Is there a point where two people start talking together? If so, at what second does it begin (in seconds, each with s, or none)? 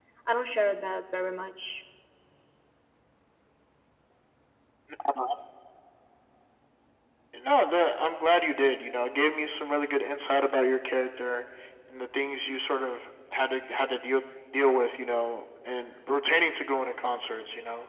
none